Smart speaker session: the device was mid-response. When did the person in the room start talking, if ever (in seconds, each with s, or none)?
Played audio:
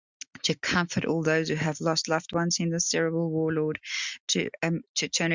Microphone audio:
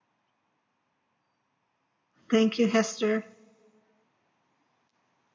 2.3 s